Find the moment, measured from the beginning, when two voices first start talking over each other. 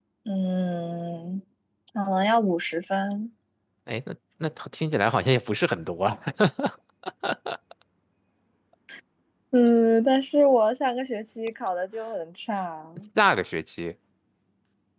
none

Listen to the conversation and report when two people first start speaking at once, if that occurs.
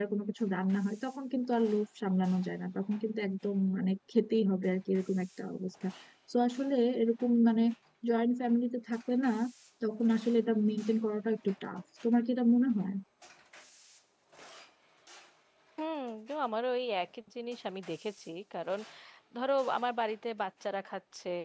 none

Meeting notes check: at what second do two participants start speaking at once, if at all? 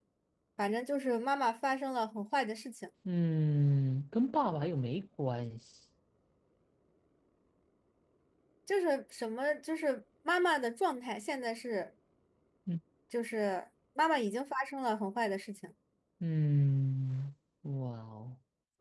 none

